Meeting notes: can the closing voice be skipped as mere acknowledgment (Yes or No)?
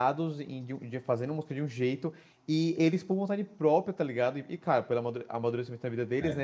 Yes